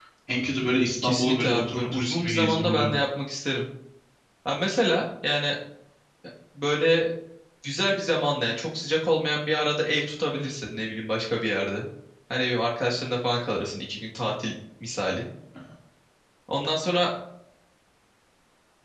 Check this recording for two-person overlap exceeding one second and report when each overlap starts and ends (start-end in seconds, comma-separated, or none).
1.0-2.9